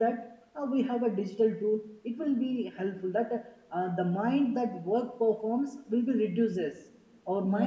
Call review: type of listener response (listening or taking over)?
listening